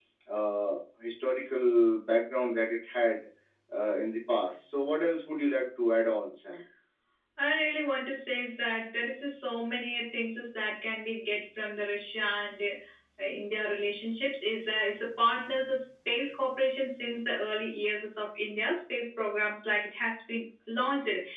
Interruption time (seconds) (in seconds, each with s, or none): none